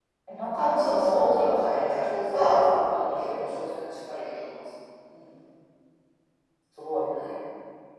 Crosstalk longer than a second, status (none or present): present